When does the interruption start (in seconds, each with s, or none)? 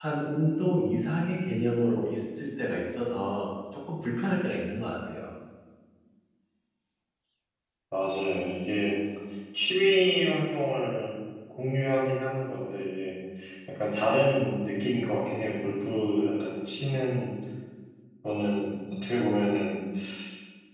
none